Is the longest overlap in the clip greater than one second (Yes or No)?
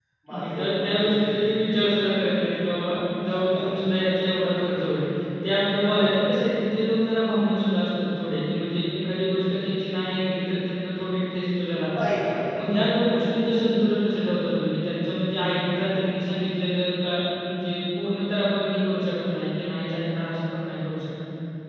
Yes